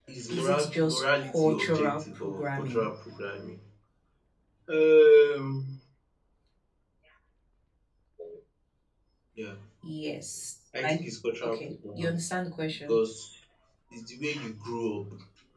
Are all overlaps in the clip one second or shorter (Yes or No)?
No